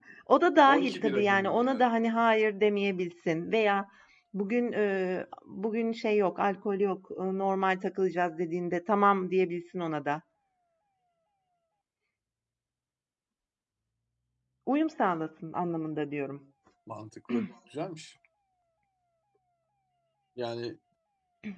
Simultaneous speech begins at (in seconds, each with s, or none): 0.7 s